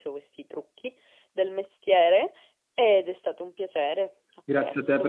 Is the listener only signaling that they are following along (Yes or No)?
No